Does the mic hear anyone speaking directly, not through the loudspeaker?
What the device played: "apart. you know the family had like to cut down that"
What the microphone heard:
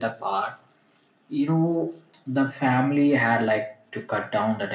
No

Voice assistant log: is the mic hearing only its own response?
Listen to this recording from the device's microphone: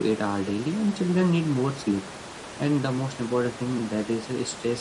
Yes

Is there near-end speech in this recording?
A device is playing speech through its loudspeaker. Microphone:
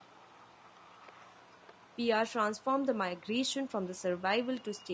Yes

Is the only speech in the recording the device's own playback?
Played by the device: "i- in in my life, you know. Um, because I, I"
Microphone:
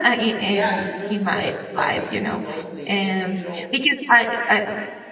No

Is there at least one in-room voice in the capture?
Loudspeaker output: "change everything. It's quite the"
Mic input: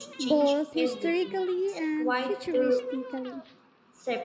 Yes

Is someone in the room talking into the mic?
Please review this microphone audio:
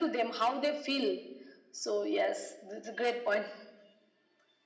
No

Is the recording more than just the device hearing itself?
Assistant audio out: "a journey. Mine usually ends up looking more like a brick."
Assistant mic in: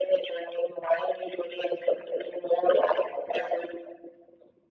No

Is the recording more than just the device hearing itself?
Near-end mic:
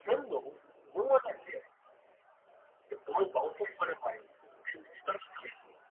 No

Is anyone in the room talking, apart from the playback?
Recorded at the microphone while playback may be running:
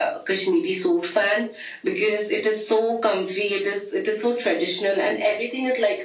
No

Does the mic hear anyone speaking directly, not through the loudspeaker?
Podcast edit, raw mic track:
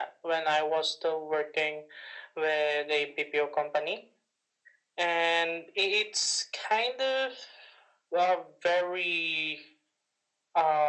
No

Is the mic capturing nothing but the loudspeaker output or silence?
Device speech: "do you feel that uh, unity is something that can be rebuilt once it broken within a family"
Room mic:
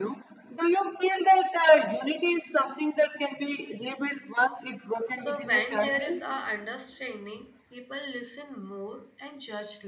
No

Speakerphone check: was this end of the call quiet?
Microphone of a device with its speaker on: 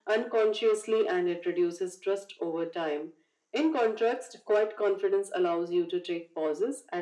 Yes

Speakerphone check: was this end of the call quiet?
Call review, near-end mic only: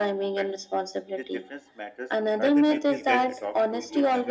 No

